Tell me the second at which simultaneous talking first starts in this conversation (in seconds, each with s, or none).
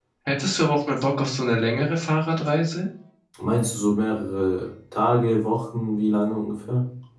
none